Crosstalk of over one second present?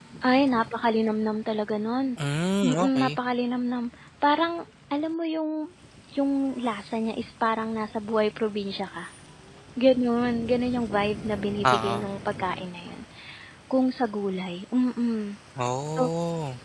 No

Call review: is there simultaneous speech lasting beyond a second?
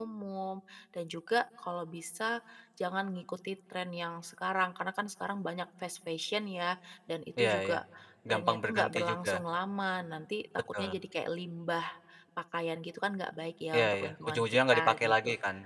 Yes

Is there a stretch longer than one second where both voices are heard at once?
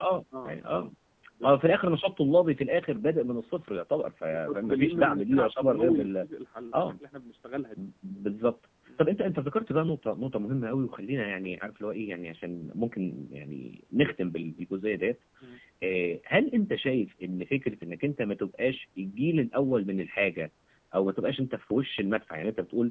Yes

